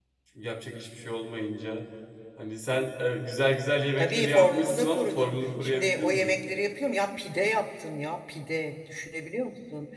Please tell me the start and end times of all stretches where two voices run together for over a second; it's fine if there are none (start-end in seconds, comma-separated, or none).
4.0-6.3